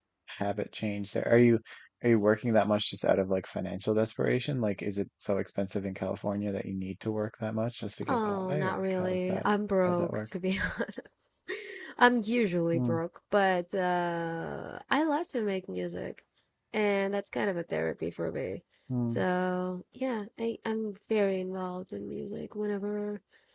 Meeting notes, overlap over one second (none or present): present